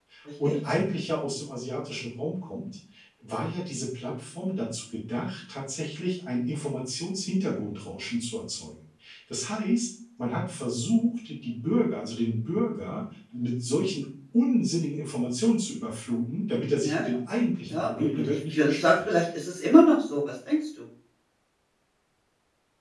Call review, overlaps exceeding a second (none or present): present